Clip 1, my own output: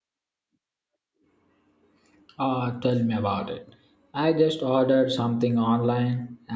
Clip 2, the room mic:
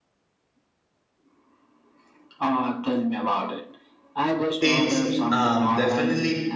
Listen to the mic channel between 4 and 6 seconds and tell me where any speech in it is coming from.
both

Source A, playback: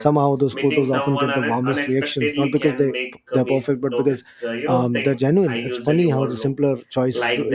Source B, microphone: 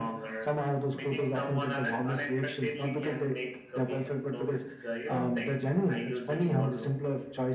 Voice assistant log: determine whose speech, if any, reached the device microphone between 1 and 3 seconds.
echo only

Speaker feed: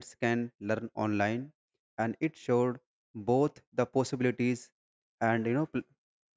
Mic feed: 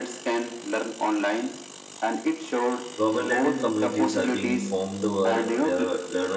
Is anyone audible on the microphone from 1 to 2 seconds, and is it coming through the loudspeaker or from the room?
echo only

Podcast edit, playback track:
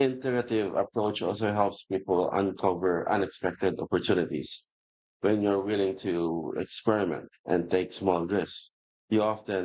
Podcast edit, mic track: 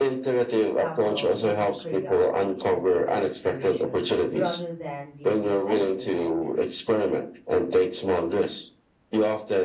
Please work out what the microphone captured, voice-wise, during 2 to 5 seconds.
both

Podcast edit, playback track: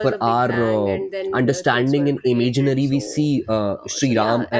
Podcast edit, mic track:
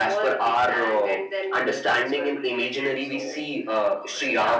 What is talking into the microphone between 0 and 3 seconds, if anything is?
echo only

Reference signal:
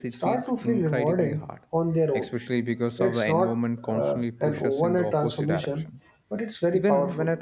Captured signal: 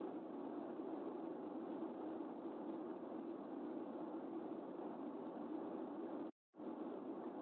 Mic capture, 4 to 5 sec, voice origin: neither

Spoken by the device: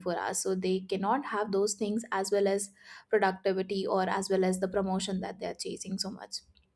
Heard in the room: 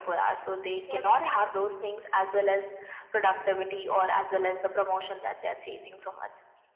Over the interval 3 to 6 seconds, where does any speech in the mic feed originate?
echo only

